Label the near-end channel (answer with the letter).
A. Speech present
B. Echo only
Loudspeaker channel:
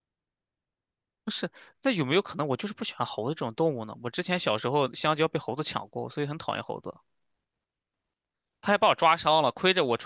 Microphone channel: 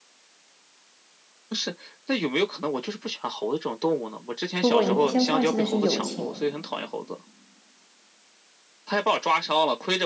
A